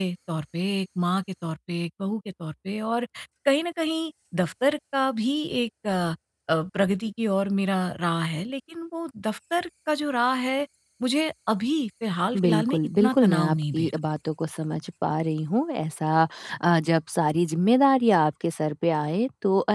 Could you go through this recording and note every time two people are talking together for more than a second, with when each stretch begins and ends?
12.4-13.9

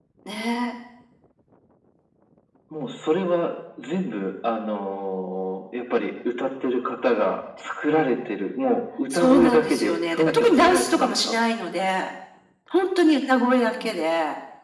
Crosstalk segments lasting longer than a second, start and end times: 9.1-11.3

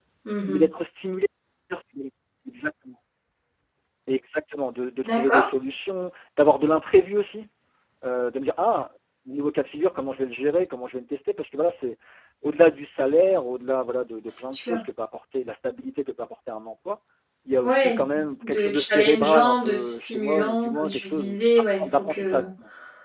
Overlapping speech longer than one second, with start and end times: 18.4-22.4

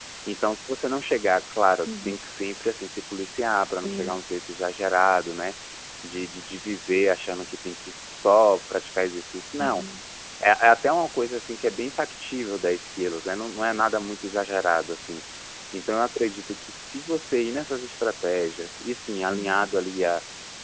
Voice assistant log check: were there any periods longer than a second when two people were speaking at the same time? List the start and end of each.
none

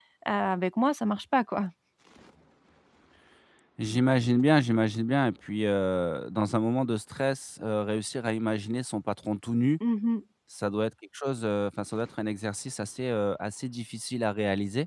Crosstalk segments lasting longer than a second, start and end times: none

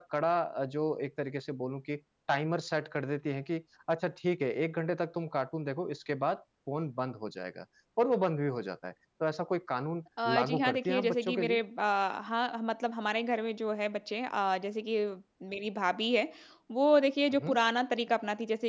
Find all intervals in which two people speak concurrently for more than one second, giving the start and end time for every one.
10.2-11.6

